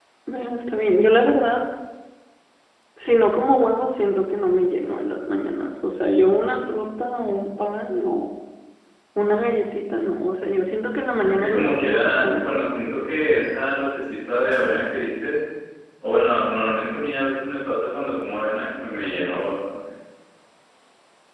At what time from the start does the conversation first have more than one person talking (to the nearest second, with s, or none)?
11 s